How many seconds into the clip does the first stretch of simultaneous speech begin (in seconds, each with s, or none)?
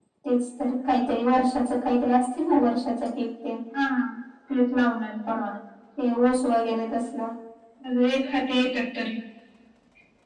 none